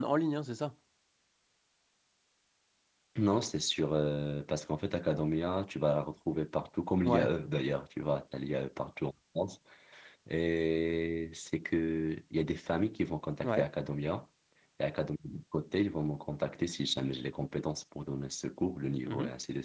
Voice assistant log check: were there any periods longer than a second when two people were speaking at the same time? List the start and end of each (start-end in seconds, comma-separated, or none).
none